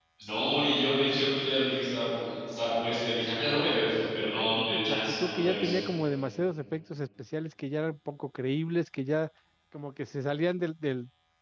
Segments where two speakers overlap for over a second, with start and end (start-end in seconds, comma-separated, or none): 4.3-5.8